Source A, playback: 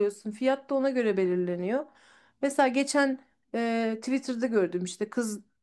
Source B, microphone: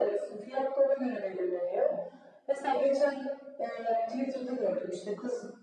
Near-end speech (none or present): none